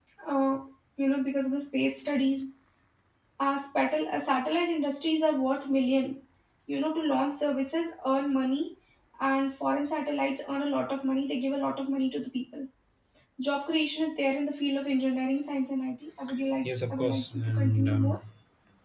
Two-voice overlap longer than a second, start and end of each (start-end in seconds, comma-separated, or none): 16.6-18.2